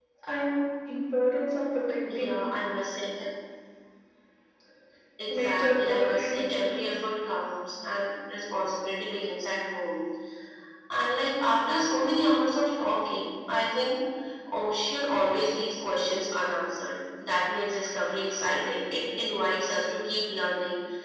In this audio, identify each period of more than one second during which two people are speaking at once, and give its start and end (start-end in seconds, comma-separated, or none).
5.3-6.7